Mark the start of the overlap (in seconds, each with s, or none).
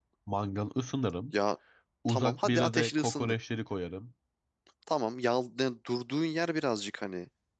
2.1 s